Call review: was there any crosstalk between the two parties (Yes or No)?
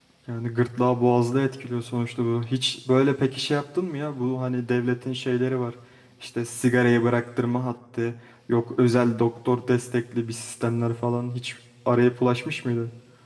No